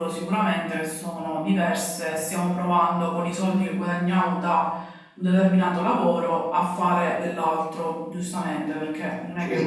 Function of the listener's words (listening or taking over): taking over